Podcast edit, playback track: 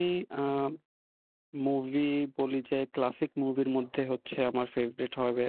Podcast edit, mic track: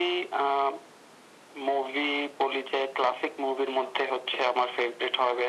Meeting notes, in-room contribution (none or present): none